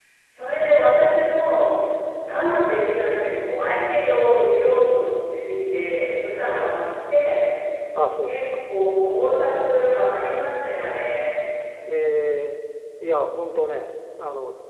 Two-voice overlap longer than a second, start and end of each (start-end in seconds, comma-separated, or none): none